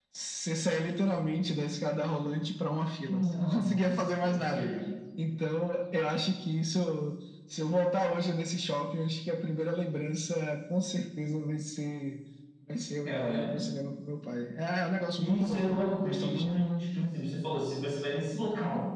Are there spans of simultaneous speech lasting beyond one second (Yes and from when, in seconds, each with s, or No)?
Yes, from 3.1 s